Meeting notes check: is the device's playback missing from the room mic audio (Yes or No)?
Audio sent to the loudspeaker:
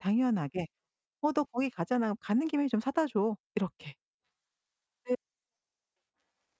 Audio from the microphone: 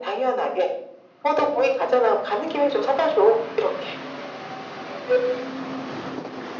No